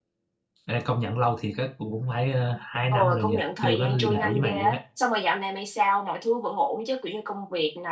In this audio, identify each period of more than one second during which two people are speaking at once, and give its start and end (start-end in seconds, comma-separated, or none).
2.9-4.8